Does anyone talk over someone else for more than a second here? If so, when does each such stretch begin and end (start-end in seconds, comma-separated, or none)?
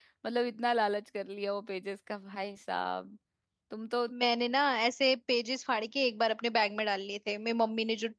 none